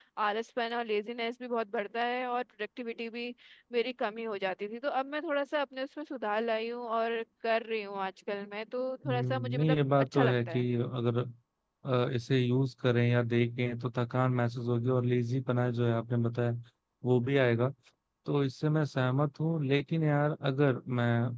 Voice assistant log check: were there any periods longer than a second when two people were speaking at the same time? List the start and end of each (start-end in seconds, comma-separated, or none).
9.1-10.7